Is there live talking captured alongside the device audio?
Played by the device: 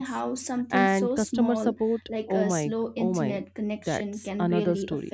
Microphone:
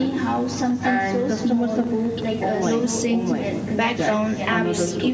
Yes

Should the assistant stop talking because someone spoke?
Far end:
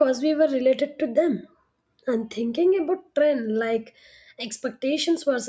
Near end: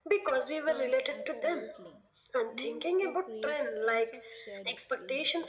Yes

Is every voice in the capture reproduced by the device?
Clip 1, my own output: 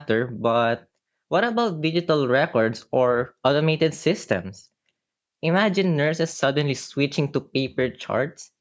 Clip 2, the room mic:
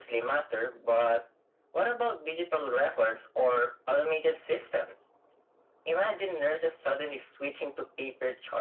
Yes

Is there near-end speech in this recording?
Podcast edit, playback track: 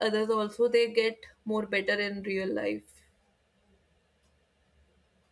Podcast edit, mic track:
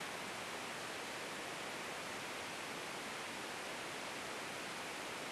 No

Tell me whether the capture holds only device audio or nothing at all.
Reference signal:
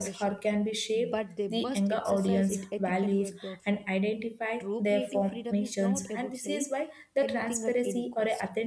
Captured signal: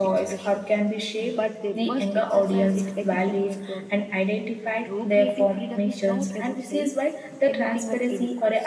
Yes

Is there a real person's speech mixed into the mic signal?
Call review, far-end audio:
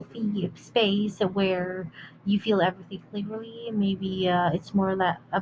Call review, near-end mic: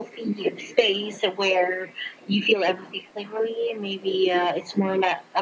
No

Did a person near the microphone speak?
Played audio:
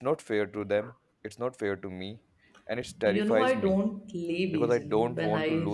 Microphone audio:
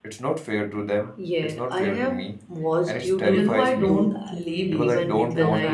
Yes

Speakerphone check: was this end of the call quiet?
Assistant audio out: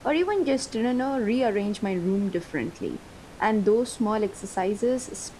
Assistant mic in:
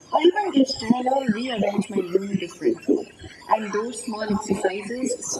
Yes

